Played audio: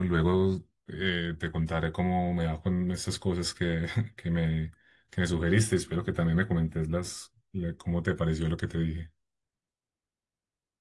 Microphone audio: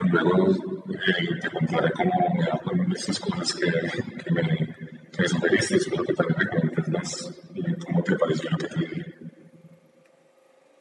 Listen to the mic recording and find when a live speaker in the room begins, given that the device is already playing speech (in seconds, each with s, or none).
none